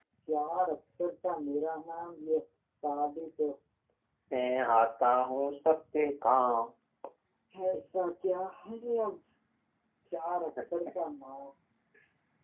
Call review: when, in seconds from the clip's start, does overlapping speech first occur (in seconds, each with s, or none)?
none